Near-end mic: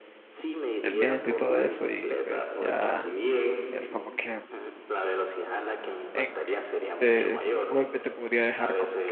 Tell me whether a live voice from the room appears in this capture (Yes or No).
Yes